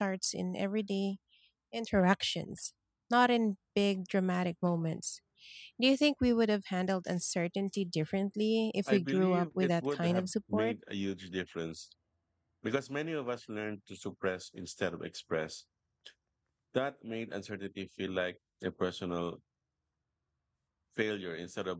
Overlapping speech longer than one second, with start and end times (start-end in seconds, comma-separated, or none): 8.9-10.7